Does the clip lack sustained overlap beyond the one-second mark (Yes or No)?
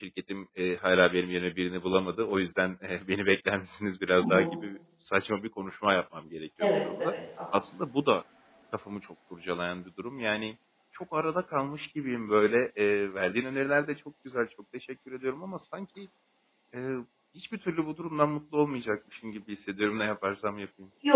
Yes